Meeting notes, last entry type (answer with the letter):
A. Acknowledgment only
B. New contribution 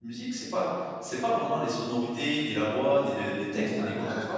B